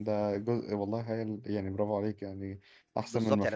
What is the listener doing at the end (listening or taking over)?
taking over